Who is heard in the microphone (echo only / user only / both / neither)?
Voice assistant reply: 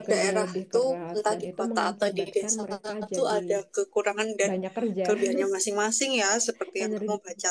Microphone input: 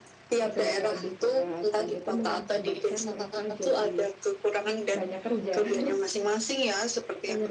echo only